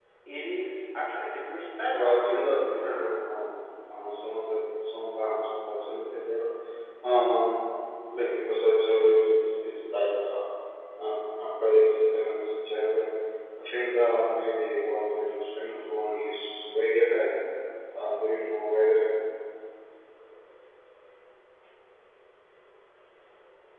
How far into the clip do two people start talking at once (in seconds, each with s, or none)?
1.9 s